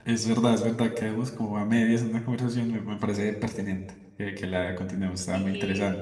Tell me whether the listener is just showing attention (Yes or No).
No